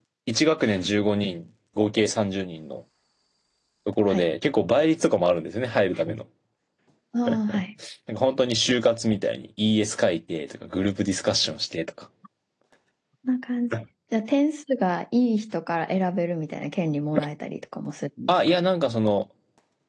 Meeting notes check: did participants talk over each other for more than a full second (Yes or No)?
No